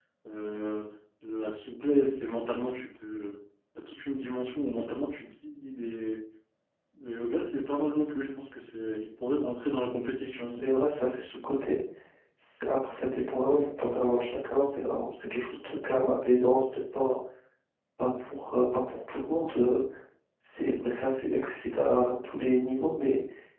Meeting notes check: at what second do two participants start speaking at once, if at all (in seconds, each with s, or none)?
none